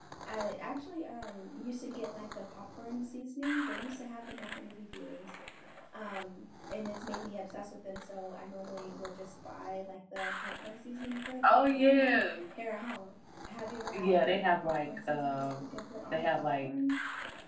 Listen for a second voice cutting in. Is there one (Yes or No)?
Yes